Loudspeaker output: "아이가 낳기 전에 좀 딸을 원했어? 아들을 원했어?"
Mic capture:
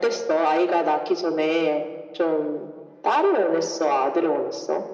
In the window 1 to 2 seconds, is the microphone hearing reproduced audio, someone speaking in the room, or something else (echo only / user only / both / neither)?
echo only